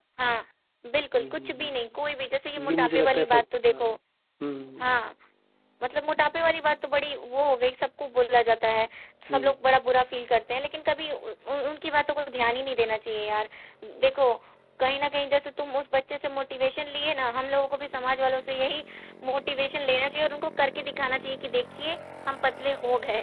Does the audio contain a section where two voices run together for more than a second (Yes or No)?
Yes